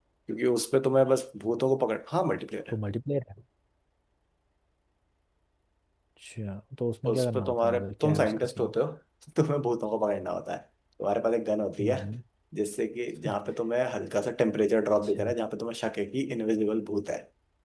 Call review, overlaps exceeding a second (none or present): present